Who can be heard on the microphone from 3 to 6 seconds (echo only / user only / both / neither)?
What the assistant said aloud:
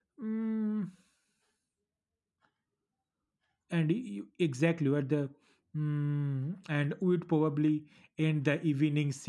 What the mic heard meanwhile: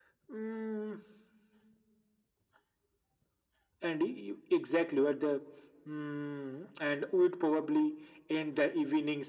echo only